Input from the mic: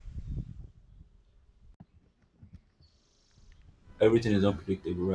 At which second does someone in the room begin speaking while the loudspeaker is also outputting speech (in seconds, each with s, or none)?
4.0 s